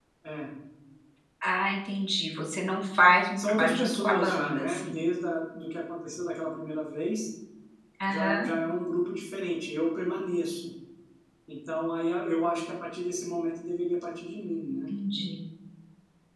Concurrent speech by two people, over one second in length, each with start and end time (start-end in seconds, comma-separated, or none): 3.4-4.9